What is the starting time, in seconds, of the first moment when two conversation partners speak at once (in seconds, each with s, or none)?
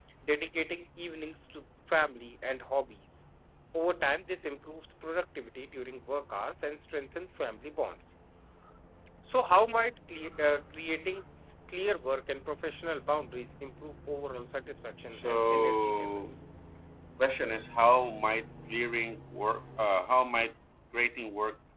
15.1 s